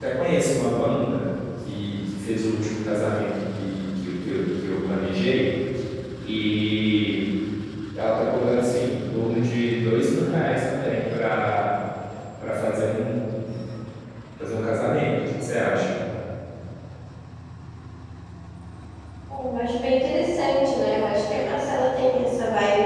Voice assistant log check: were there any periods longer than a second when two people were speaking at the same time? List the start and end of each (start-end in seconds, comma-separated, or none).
none